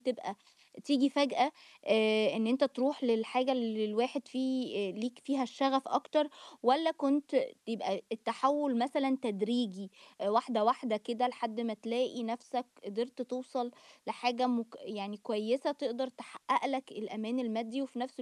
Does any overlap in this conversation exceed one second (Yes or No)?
No